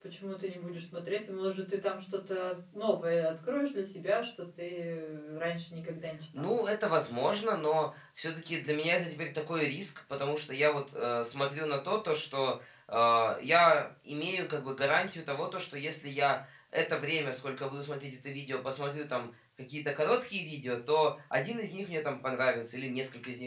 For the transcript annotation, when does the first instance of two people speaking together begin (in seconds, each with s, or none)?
none